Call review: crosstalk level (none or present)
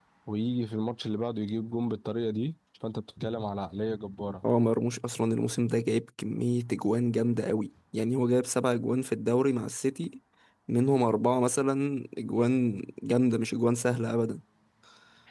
none